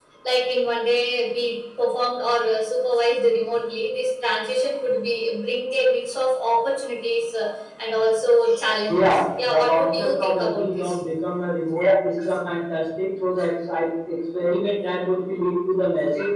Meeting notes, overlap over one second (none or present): present